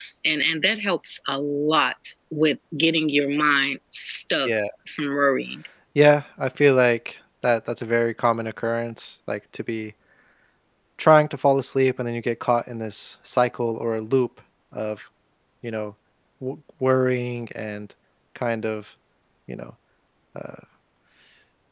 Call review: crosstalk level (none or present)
none